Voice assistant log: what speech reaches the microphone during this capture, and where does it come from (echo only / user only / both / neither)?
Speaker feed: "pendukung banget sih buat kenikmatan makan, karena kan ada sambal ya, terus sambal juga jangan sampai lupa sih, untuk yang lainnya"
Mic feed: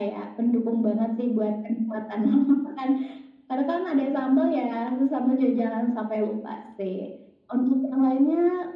echo only